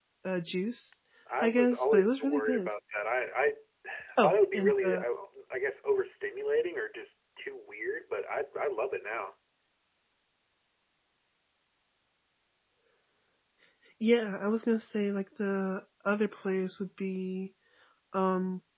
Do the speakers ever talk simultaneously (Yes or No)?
Yes